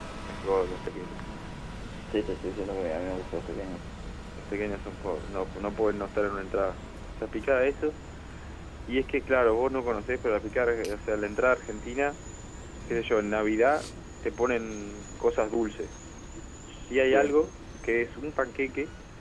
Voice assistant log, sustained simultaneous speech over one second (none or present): none